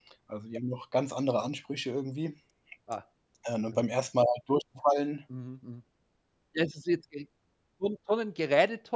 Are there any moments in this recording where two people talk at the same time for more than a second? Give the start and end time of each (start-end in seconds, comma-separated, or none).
none